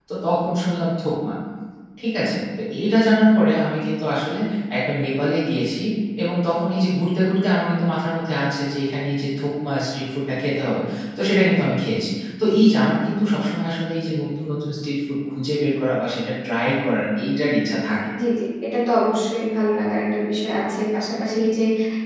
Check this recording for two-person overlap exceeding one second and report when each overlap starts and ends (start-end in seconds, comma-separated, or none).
none